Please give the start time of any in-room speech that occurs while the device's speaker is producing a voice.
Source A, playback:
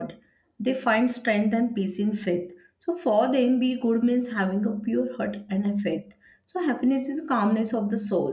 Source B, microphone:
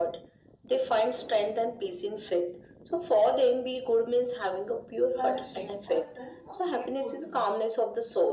5.1 s

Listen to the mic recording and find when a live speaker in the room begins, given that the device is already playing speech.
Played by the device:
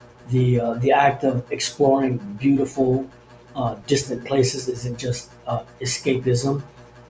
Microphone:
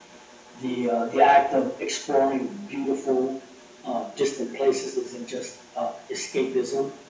none

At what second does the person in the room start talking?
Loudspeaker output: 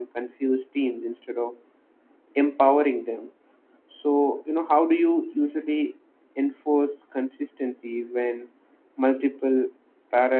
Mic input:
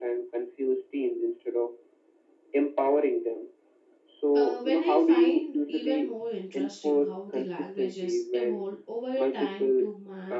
4.3 s

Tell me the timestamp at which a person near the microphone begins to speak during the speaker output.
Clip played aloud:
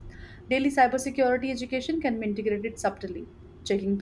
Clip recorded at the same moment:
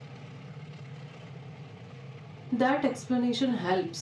2.5 s

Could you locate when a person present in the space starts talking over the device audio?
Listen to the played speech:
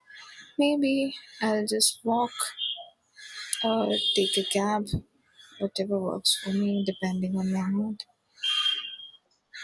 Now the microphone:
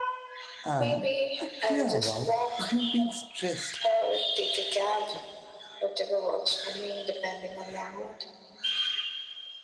0.6 s

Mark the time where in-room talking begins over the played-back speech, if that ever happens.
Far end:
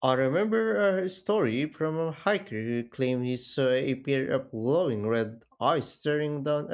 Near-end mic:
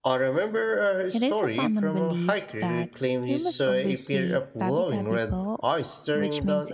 1.1 s

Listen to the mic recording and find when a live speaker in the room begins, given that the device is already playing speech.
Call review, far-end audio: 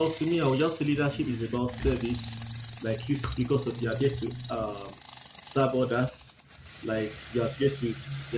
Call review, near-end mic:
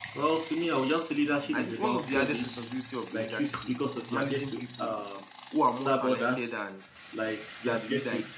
1.5 s

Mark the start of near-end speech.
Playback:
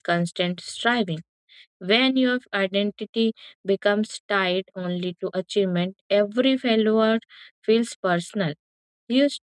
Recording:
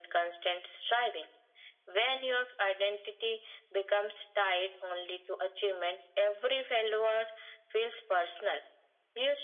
none

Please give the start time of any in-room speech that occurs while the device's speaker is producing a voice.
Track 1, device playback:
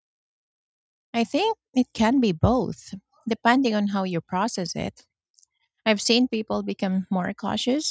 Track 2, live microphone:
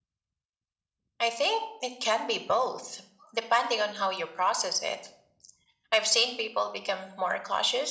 none

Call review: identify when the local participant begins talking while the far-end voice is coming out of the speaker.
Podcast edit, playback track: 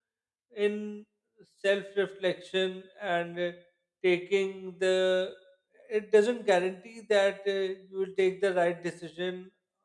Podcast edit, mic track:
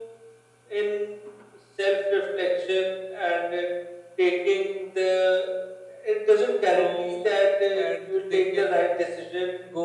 6.7 s

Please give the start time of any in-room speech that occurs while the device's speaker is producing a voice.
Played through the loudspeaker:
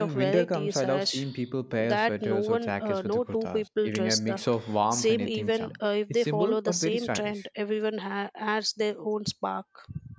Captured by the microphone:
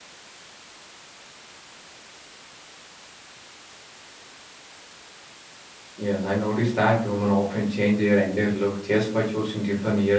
6.0 s

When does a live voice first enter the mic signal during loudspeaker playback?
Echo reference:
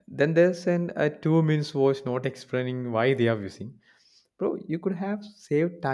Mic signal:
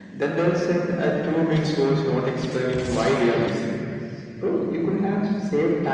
none

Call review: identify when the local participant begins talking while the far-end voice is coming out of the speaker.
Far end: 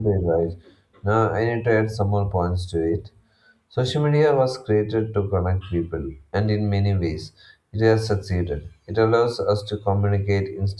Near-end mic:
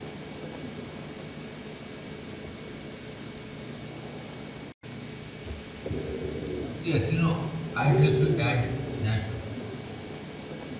6.8 s

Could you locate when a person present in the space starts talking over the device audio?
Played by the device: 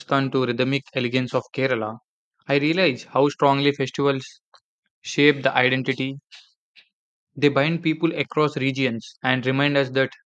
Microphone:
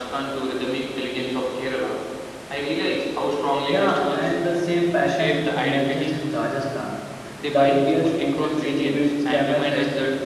3.6 s

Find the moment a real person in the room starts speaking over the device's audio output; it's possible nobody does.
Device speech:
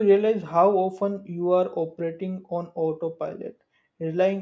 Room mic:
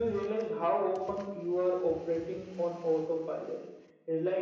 none

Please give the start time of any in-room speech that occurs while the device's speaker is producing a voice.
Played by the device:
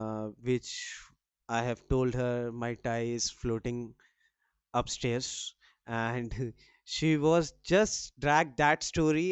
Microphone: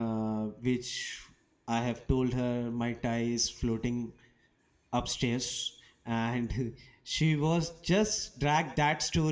none

